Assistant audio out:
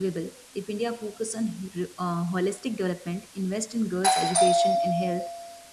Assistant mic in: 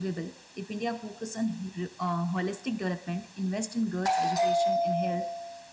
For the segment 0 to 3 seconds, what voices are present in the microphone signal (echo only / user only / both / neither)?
echo only